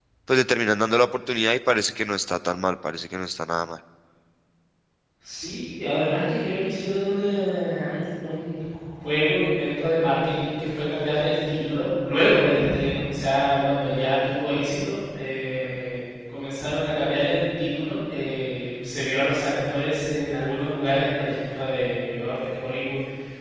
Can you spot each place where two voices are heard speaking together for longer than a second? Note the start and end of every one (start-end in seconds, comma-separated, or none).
none